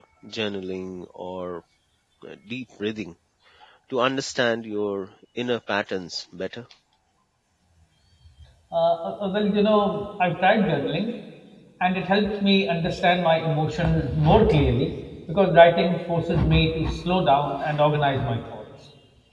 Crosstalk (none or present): none